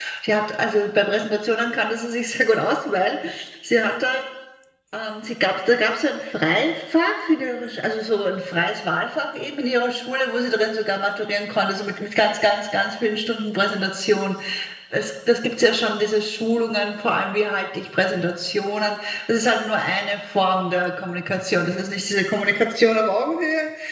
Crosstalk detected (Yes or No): No